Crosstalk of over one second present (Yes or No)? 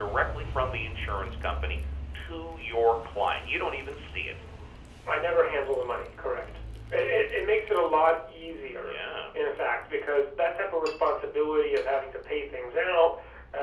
No